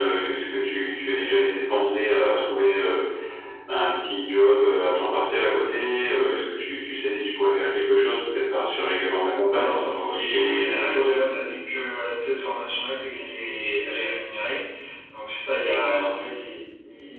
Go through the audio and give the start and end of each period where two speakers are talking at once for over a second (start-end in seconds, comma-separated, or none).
9.5-11.1